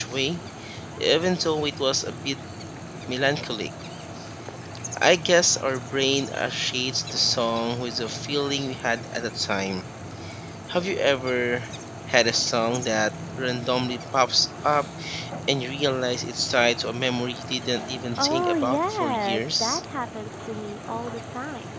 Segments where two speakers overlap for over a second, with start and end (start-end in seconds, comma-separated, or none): 18.2-19.8